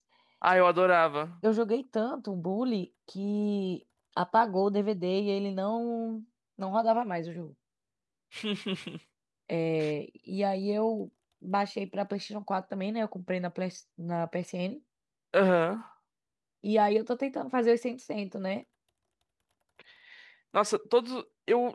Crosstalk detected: No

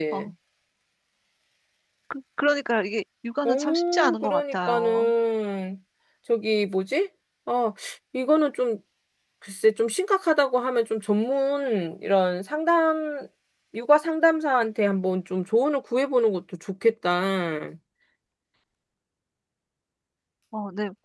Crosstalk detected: Yes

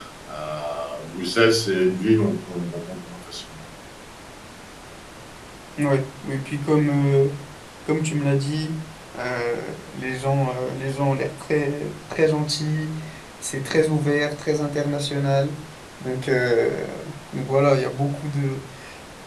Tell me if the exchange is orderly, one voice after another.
Yes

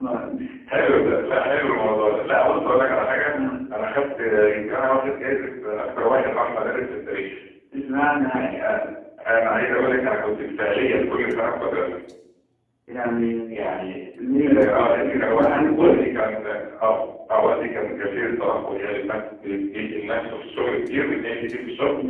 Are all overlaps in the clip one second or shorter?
No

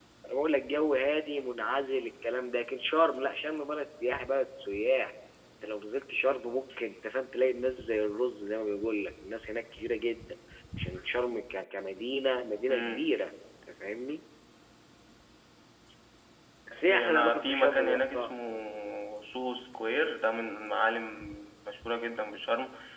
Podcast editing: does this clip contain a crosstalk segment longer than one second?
Yes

